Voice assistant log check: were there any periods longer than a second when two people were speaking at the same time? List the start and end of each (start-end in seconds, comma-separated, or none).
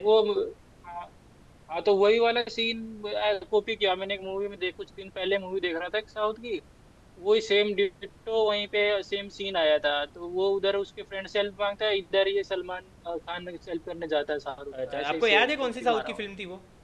14.9-16.2